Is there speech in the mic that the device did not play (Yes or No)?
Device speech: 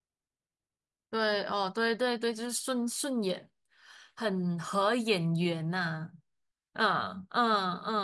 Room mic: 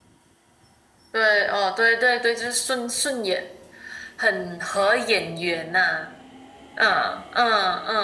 No